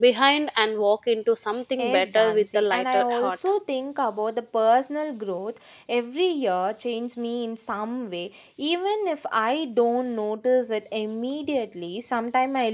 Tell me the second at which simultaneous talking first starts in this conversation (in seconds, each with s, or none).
1.8 s